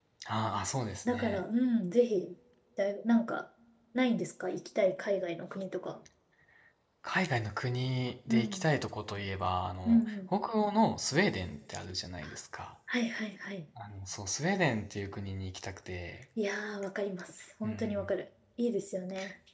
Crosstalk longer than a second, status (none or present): none